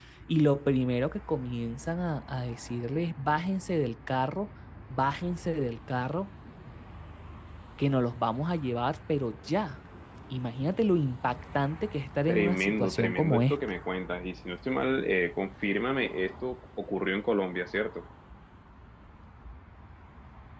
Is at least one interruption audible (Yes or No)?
Yes